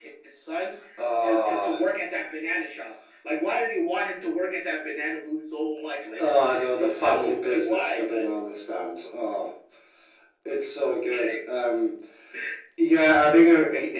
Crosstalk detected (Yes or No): Yes